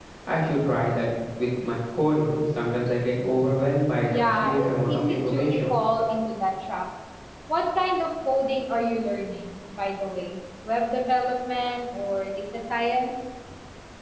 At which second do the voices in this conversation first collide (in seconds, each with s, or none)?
4.1 s